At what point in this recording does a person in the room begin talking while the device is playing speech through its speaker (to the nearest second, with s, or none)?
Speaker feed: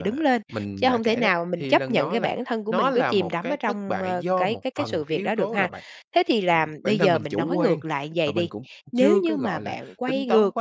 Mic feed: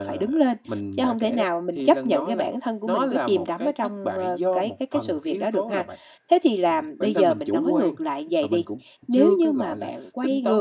none